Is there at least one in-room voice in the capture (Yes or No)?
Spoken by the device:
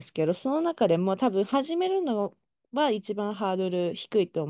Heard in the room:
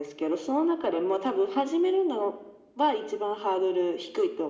No